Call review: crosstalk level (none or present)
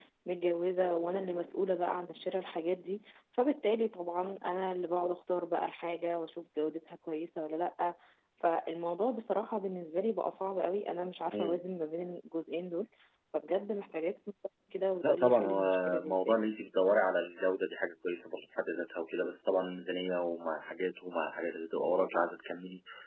present